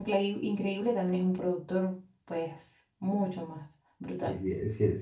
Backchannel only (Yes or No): No